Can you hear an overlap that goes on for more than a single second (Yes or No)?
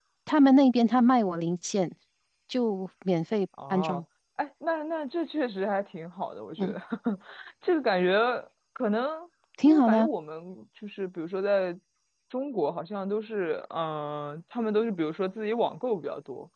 No